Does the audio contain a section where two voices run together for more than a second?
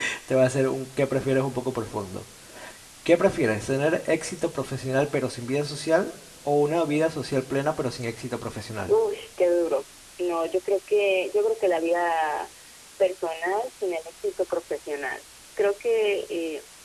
No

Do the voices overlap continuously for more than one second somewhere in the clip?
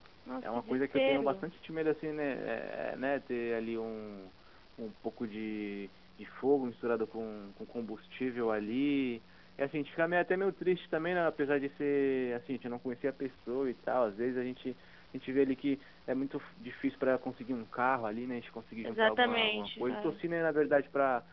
Yes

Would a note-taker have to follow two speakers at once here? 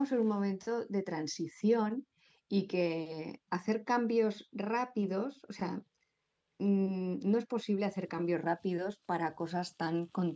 No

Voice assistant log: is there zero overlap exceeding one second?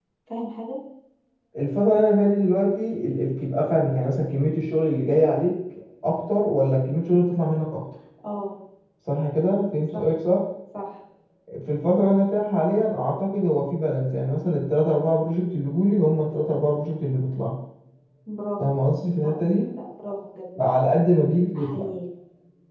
Yes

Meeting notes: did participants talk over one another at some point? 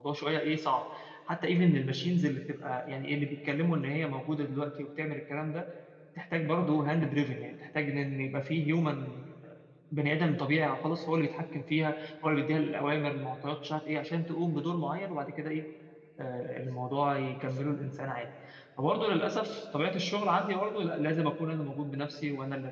No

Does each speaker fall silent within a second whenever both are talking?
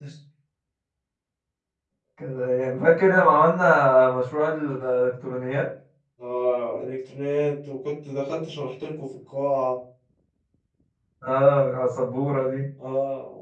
Yes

